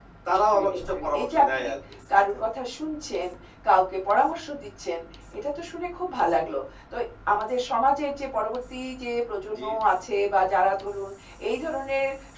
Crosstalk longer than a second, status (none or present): present